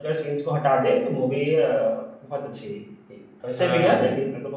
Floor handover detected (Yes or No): No